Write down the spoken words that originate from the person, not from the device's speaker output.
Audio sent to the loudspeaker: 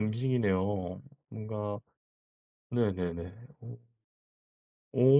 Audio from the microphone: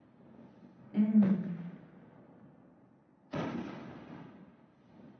음.

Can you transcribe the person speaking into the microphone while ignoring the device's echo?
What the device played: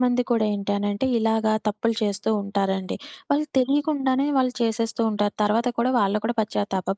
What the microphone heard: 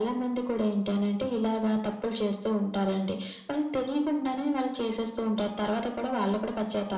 none

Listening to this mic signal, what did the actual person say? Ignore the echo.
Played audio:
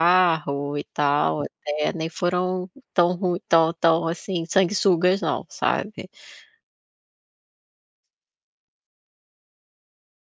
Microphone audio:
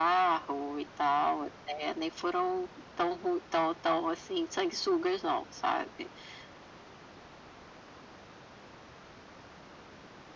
none

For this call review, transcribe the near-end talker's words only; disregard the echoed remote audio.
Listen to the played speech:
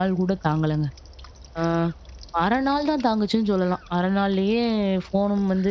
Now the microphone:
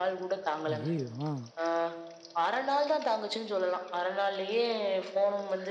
ஐயய்யோ! ஆ.

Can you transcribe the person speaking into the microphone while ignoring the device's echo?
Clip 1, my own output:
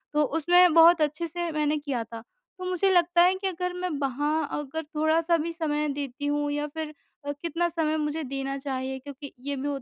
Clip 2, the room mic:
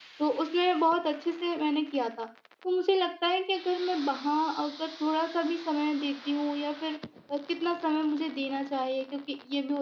none

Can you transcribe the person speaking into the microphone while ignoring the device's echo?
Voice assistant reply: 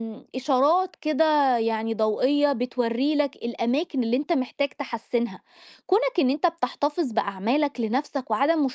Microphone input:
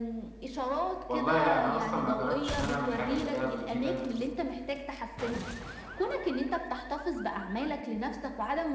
والله لأ، أنا أصلًا ما جرّبتش إن أنا أعمل حاجة زي ده قبل كده،

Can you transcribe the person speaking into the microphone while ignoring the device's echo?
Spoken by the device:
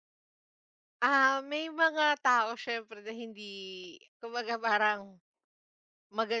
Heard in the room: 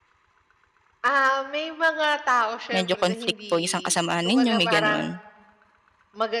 Medyo conflict po isang kasamahan ninyo, may gano'n?

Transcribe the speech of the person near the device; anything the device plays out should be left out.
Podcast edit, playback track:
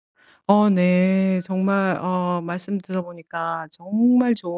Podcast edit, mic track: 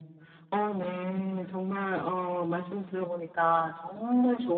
none

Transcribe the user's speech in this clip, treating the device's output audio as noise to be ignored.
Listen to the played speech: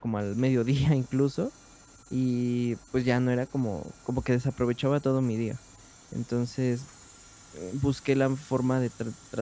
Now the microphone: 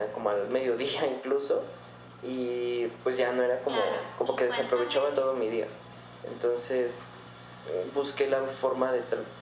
Claro, y cuéntame,

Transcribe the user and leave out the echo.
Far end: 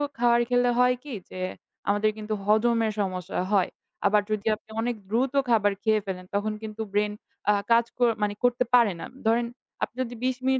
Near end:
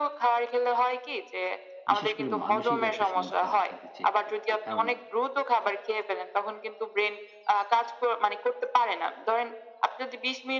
বিশেষ করে মানসিক একটা সমস্যা দেখা দিচ্ছে এক্ষেত্রে। কারণ

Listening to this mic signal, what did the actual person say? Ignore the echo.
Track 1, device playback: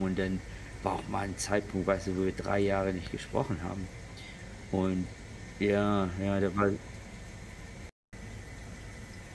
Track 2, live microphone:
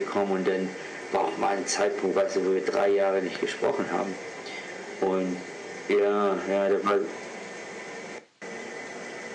none

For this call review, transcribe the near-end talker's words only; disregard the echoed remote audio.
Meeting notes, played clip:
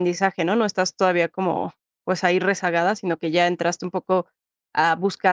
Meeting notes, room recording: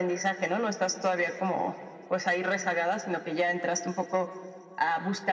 none

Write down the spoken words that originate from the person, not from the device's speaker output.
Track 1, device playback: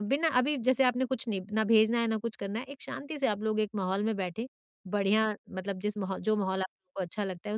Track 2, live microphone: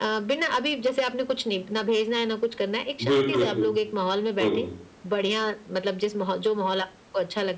हुँ, हुँ, हुँ, हुँ, हुँ।

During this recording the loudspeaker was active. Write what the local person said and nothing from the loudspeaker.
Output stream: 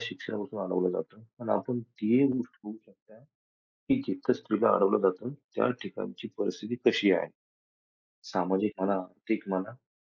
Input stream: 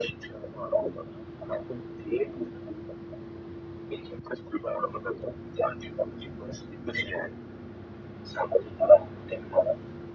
none

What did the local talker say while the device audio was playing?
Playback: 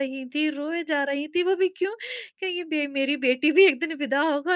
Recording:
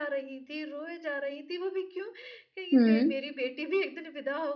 हुँ।

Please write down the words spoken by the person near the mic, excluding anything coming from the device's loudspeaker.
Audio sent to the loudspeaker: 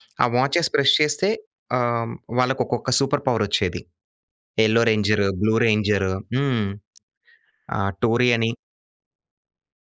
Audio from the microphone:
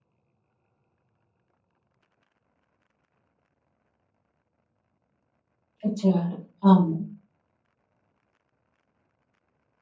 ఇచ్చేవాడు. అవును.

